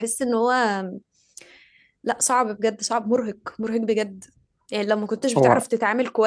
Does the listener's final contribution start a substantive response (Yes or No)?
No